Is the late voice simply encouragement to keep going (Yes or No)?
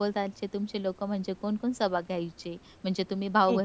Yes